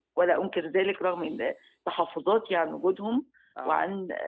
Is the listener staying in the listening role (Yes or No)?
Yes